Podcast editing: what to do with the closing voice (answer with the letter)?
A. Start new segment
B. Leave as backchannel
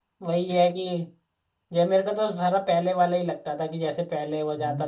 A